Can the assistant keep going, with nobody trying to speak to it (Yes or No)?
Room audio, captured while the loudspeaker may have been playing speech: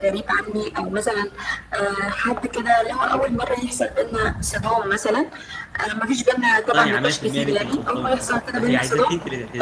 No